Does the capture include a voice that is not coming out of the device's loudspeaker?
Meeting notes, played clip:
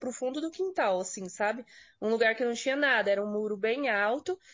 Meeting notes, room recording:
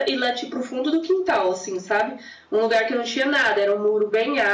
No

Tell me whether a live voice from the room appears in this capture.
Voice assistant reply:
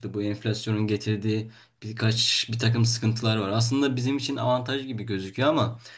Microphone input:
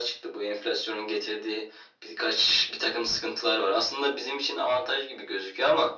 No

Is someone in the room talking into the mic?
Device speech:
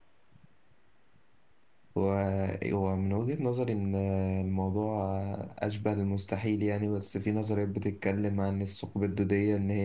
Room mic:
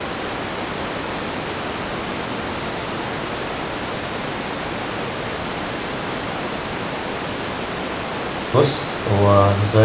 Yes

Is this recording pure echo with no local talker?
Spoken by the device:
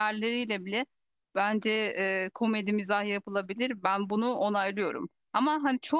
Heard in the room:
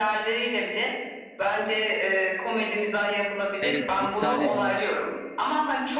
No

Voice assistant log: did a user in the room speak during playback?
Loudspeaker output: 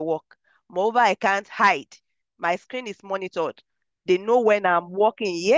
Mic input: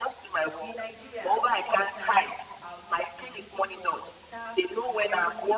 Yes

